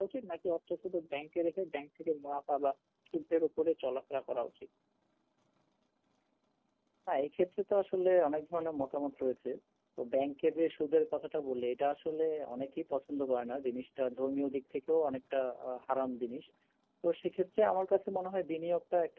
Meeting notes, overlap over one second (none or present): none